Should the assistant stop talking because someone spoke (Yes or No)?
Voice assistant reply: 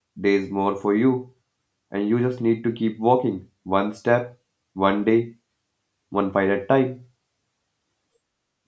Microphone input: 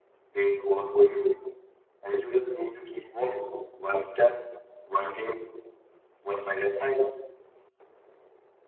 No